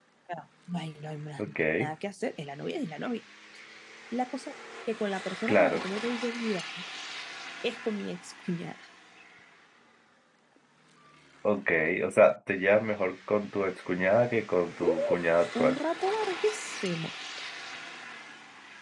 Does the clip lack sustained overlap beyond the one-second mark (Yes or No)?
Yes